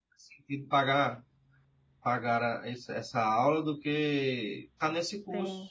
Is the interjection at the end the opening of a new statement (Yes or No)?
Yes